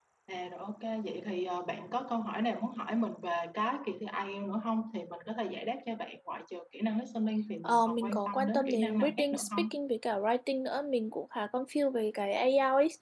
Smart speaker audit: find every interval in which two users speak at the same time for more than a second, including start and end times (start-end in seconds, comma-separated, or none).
7.6-9.7